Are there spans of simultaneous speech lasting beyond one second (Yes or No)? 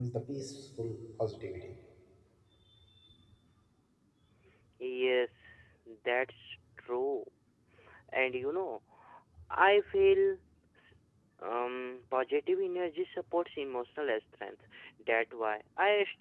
No